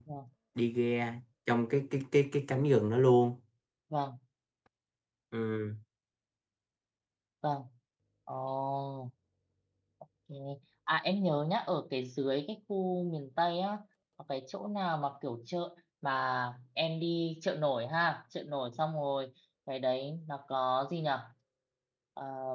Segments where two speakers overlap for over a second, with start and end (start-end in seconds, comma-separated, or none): none